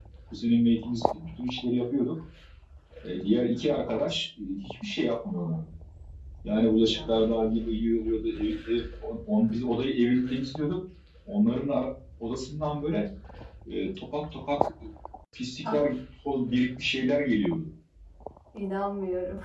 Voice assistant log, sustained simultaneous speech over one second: none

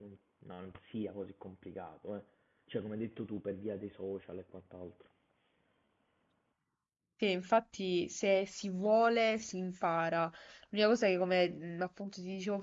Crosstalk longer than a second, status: none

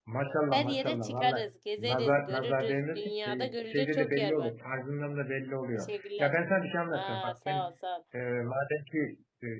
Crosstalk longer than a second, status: present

